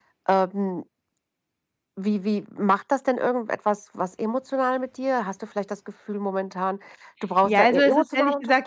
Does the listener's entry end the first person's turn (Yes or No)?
Yes